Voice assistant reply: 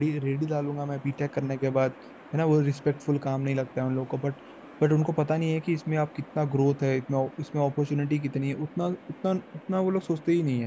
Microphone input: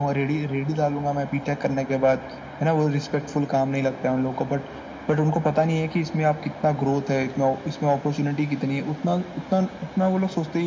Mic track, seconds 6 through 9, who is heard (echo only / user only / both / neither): echo only